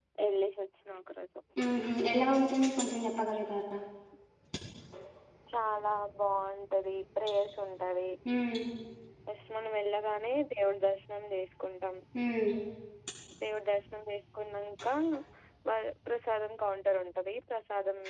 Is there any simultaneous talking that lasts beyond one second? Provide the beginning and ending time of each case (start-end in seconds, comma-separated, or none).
none